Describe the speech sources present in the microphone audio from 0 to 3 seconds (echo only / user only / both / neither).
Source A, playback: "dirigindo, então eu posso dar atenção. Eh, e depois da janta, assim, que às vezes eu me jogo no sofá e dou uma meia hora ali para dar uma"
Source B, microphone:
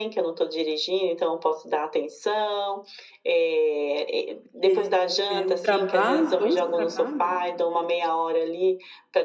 echo only